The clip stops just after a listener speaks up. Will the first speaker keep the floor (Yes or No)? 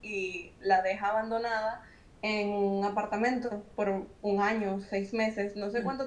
Yes